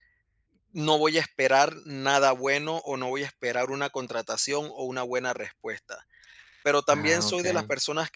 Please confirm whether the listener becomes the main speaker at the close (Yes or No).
No